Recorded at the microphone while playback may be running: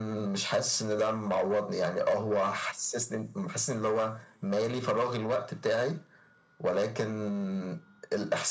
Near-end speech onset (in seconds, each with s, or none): none